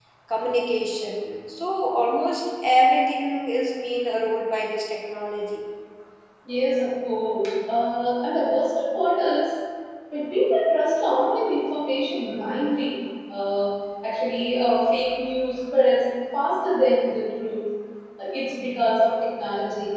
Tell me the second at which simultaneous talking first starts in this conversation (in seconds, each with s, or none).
none